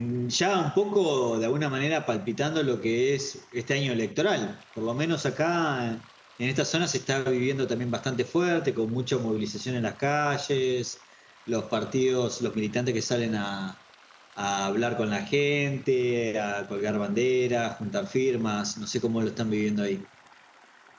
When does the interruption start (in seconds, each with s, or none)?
none